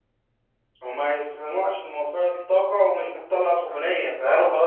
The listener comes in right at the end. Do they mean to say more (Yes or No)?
No